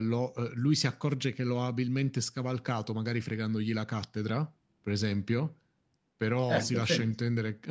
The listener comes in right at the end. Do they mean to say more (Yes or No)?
No